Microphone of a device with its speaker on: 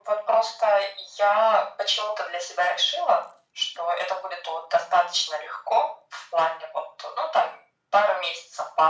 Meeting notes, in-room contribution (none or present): none